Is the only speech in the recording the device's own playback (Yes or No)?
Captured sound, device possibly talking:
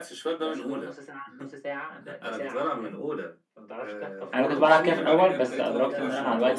No